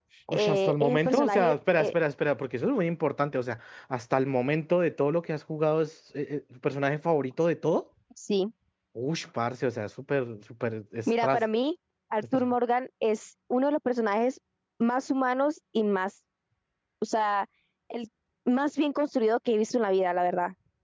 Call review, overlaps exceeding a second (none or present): present